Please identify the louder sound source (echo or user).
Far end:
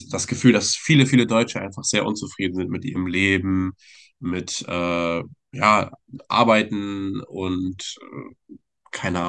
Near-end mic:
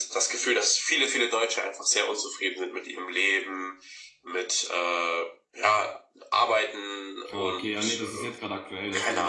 echo